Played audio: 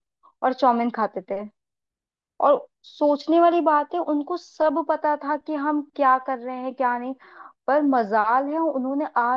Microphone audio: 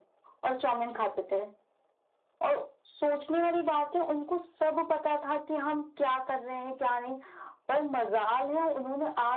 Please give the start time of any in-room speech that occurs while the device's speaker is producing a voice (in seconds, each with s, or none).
none